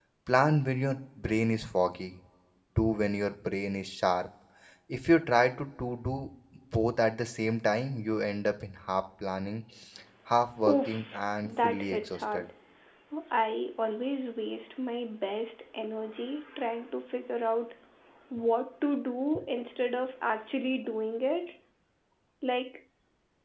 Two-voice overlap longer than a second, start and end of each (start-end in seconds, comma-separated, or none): 10.7-12.4